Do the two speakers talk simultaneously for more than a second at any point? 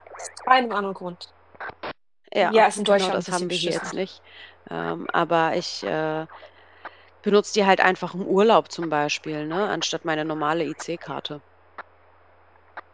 Yes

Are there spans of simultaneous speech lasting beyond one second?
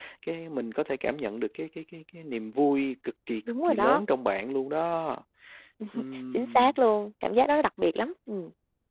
No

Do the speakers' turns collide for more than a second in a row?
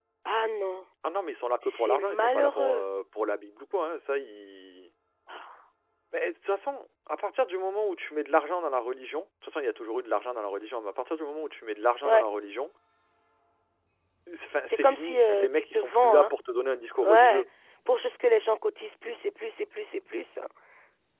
Yes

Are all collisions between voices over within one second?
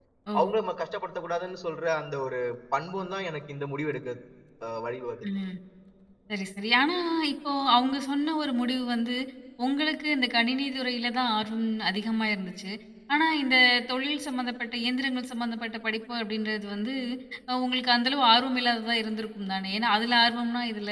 Yes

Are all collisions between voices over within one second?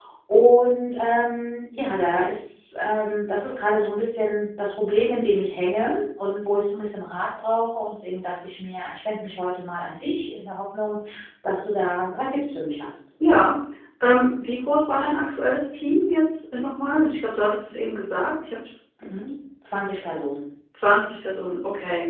Yes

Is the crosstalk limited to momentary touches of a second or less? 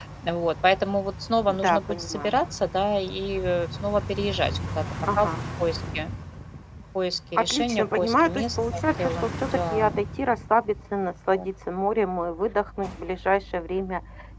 No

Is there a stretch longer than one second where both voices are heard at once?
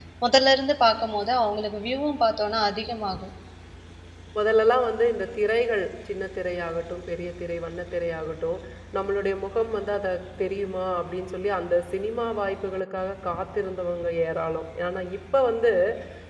No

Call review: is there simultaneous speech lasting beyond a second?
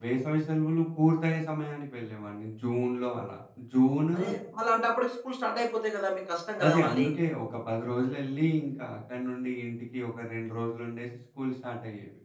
No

